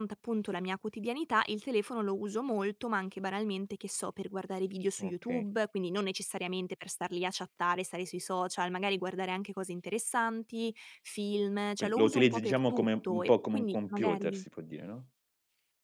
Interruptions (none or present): present